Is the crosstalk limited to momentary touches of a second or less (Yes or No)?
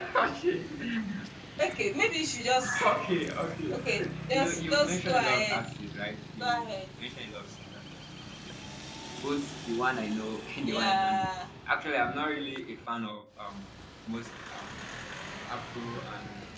No